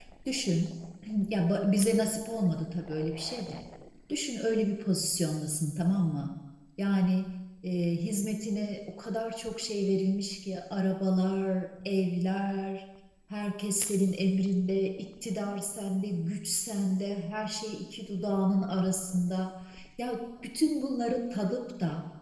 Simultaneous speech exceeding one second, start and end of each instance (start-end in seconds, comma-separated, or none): none